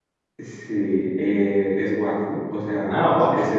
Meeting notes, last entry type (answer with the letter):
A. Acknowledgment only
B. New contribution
A